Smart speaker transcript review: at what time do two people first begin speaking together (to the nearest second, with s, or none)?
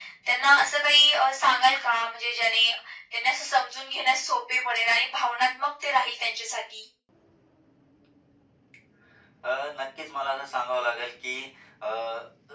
none